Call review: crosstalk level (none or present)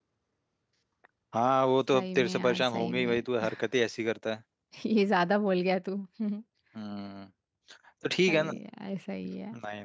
present